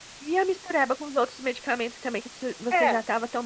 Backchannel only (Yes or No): Yes